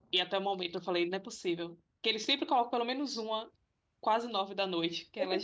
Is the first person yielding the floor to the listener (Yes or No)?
Yes